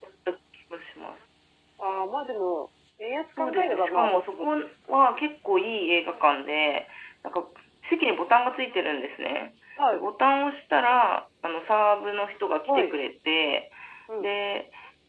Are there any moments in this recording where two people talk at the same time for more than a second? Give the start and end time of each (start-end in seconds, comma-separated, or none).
3.4-4.7